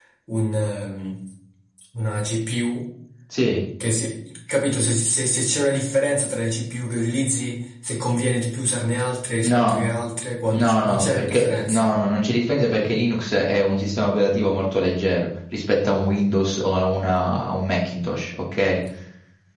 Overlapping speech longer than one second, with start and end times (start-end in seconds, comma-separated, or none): 10.5-11.9